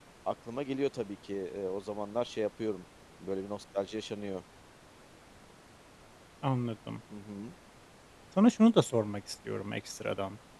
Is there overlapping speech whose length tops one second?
No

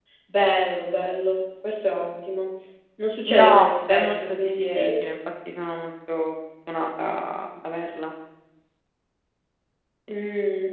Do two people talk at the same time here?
Yes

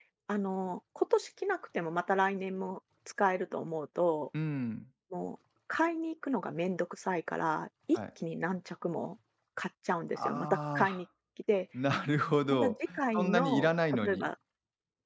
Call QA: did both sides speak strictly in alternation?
No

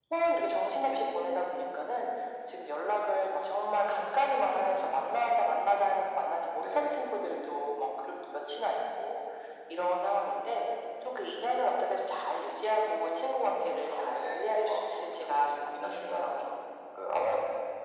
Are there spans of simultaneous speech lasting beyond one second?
Yes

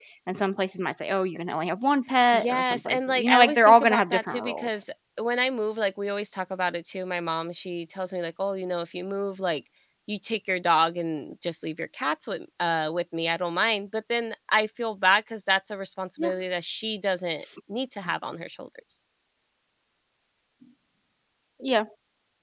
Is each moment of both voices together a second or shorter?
No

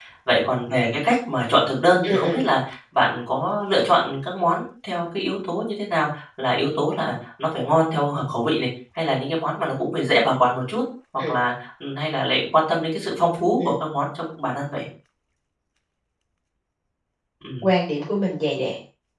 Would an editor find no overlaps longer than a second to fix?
Yes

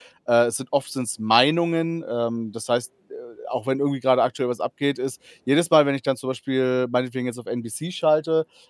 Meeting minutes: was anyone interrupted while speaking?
No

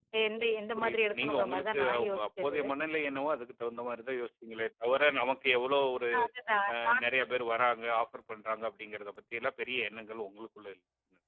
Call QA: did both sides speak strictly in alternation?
No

